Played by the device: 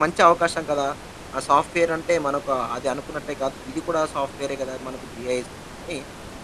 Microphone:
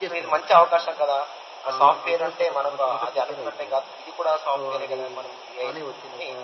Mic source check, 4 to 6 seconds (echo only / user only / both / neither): both